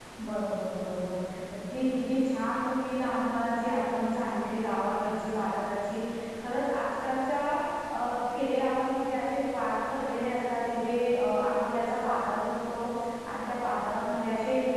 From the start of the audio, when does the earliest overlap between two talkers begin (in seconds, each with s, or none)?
none